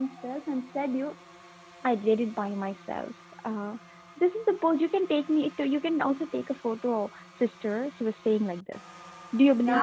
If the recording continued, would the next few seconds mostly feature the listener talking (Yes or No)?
Yes